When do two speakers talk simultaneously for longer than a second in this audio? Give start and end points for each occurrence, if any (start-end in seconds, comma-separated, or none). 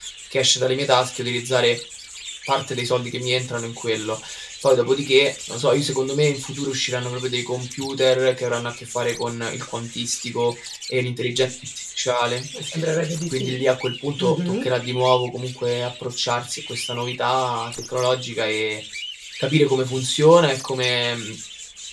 none